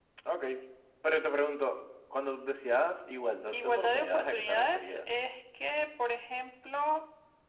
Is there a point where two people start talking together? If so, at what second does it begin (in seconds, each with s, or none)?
3.5 s